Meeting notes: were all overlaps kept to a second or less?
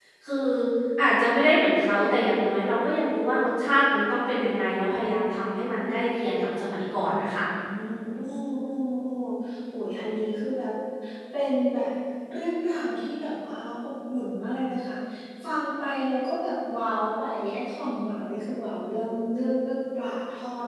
Yes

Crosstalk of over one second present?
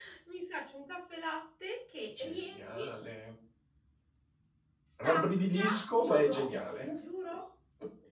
Yes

